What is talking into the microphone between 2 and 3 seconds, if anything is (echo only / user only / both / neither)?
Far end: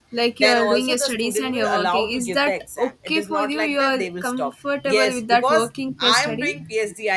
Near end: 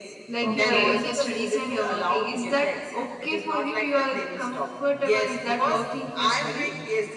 echo only